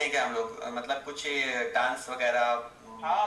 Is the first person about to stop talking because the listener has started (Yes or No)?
Yes